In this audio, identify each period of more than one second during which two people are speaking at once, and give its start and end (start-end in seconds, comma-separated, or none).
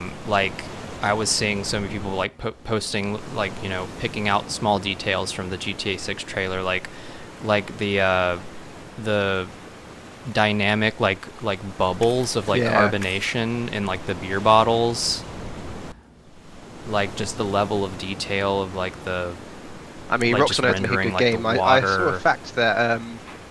20.3-22.2